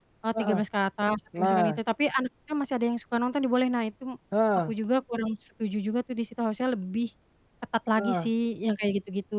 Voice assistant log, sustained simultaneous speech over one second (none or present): none